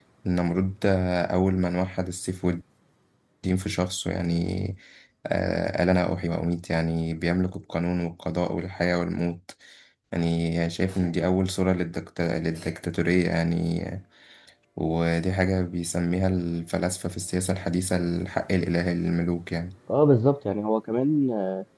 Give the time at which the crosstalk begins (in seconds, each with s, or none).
none